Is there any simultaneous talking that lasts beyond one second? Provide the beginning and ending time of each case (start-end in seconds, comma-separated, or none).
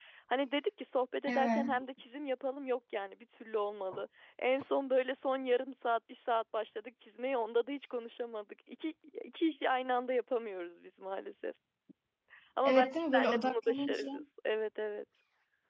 12.6-14.1